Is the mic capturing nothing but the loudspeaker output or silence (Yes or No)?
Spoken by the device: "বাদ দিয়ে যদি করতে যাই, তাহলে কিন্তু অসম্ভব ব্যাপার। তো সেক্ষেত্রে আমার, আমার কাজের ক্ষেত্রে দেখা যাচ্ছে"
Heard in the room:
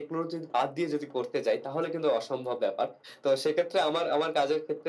Yes